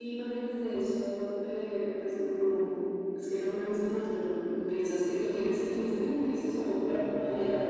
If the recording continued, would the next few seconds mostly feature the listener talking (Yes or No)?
Yes